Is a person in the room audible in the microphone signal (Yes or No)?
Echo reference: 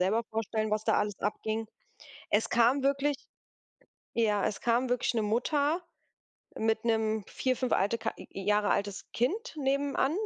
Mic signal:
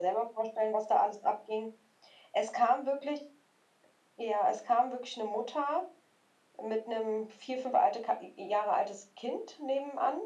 No